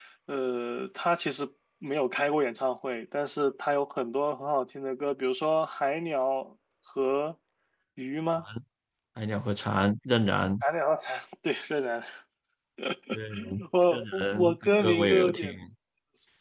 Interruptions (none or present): present